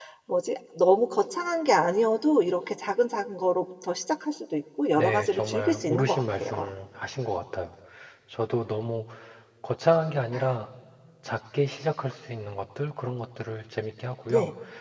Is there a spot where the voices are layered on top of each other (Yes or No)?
Yes